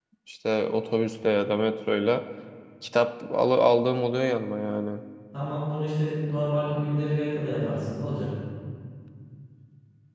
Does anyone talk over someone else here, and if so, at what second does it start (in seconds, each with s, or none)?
none